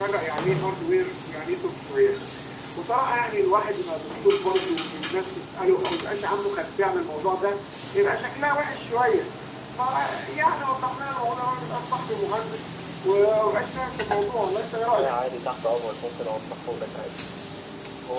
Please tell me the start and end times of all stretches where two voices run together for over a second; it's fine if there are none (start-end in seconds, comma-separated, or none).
none